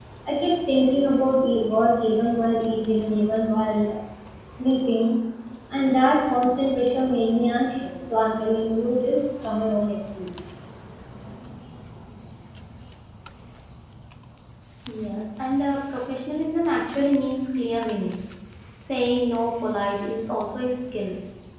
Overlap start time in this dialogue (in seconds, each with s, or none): none